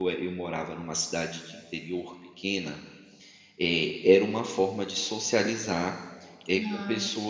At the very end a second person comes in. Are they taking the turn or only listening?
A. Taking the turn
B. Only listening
B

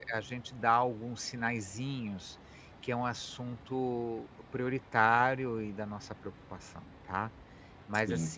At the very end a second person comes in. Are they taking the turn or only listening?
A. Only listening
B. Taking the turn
A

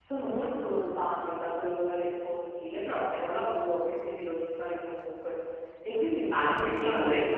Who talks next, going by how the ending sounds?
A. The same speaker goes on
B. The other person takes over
B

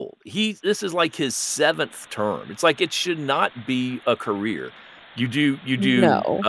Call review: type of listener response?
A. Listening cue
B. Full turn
A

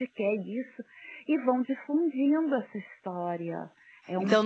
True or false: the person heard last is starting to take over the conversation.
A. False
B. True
B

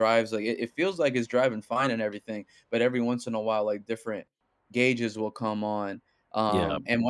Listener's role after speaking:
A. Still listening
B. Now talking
A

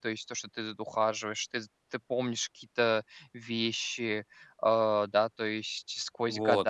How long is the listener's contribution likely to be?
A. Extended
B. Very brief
A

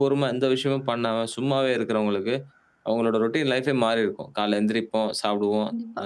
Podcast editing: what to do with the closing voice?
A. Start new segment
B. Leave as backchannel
B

